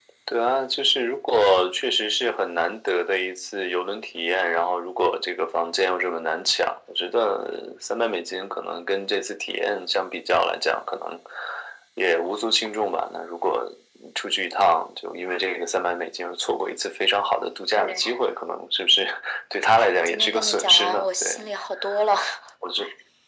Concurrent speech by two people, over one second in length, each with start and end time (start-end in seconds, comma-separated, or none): 19.7-21.4